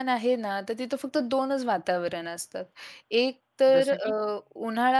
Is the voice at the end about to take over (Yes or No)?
No